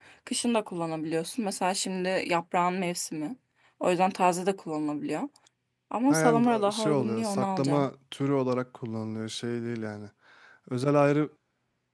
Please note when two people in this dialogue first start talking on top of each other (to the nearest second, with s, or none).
6 s